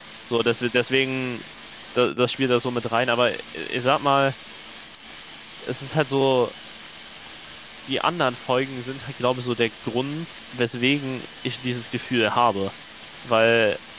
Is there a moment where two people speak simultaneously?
No

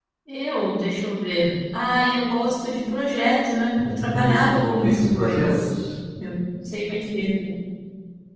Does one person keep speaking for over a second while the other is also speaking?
Yes, from 3.8 s

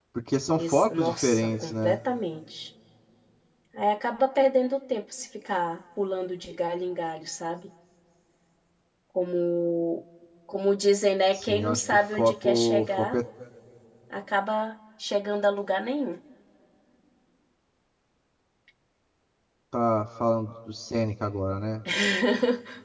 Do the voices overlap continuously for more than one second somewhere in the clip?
Yes, from 0.6 s

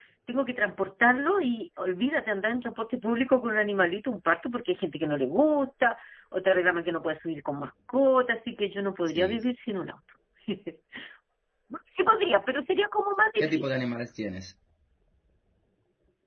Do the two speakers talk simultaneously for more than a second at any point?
No

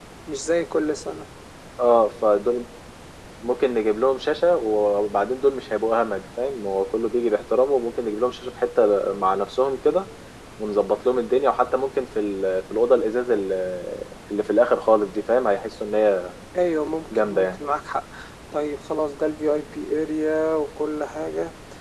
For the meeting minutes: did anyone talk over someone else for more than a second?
No

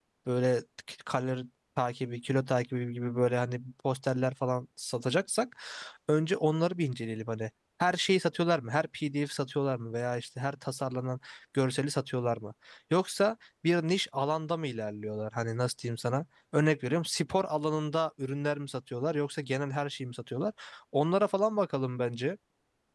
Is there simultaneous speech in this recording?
No

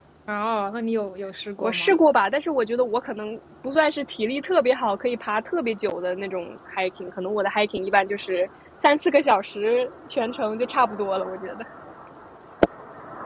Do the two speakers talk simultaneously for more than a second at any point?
No

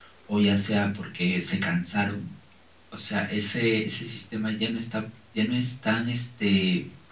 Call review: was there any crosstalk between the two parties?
No

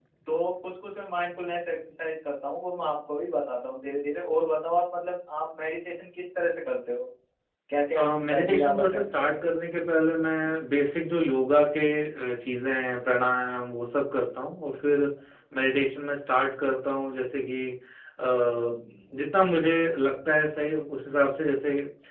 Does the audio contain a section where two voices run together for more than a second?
Yes, from 8.0 s

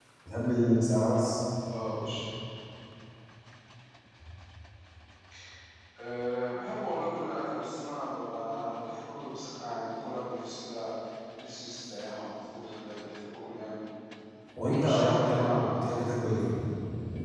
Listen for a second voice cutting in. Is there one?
Yes, from 14.6 s

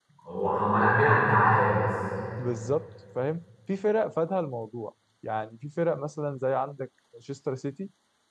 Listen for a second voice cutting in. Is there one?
No

